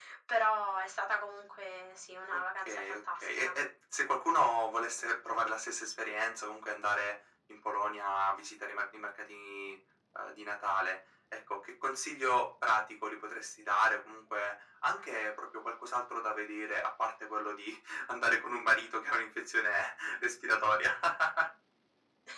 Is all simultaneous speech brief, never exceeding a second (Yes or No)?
No